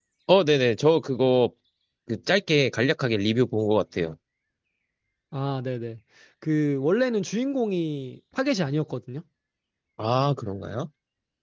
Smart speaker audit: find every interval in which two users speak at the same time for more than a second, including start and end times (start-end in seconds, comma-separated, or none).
none